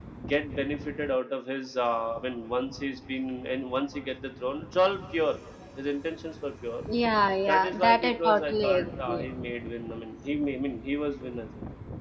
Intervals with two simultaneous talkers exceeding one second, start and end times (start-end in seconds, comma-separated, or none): 7.5-9.2